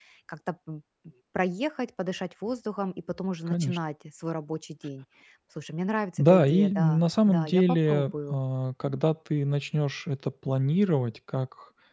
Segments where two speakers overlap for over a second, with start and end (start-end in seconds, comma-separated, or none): 6.2-8.4